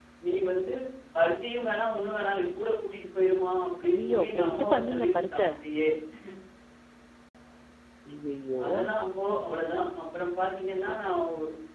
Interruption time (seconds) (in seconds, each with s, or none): 3.9 s